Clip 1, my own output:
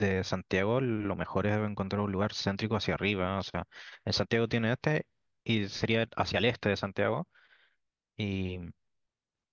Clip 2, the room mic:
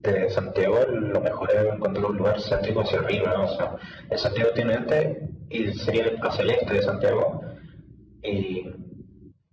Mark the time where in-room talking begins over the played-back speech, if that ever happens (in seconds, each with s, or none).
none